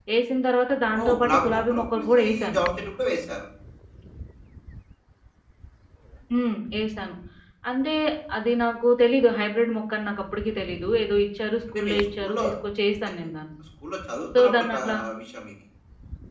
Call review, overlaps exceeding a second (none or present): present